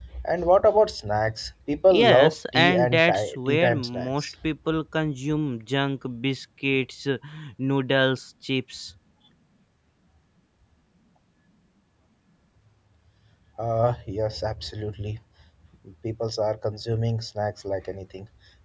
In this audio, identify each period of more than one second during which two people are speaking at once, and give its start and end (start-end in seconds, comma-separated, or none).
1.9-4.3